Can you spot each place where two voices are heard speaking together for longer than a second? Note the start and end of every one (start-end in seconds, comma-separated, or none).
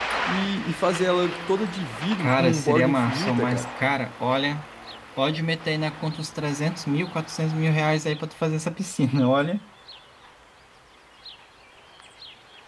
2.2-3.7